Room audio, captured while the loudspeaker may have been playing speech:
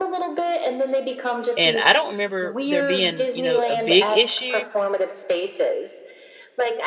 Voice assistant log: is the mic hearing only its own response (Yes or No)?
No